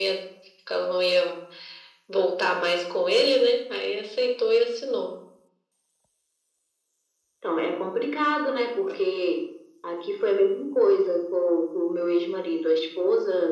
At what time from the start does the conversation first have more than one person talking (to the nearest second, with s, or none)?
none